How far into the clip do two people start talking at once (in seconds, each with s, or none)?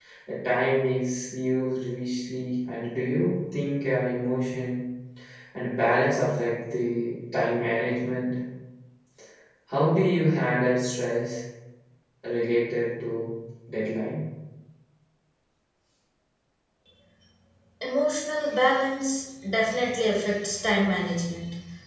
none